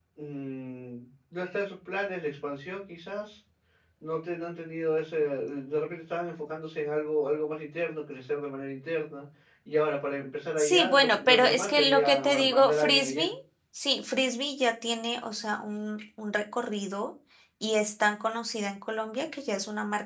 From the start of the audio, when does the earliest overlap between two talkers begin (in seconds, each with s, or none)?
10.6 s